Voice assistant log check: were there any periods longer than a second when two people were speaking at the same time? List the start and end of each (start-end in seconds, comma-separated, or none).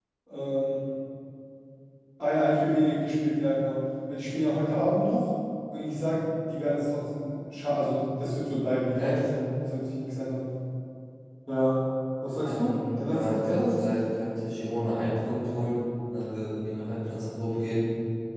12.4-14.0